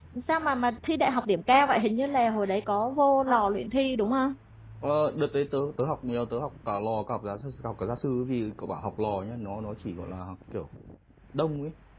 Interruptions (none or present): none